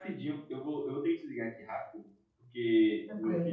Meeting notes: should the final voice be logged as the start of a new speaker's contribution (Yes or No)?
No